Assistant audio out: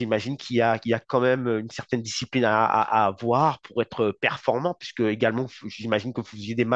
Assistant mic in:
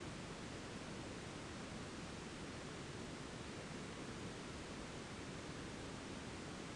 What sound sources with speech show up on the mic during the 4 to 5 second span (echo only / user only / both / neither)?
neither